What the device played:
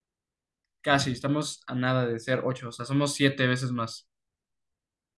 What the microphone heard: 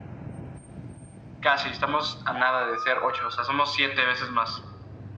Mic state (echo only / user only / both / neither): echo only